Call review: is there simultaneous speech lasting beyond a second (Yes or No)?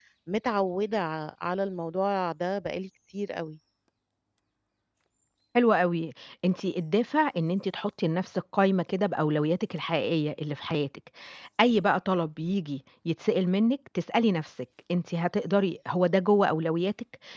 No